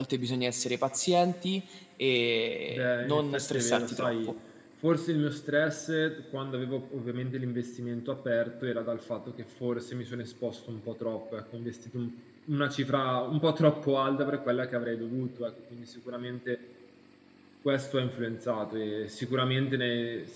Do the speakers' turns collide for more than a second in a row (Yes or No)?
Yes